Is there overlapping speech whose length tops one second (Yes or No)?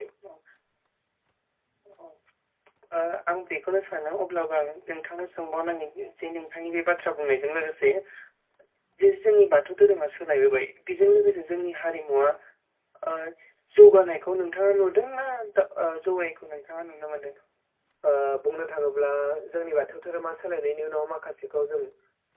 No